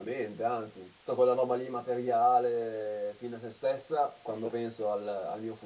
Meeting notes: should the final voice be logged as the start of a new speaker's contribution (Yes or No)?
No